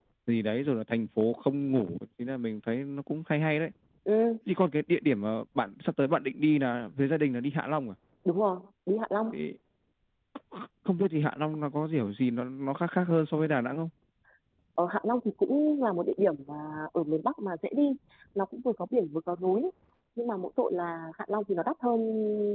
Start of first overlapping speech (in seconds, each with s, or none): none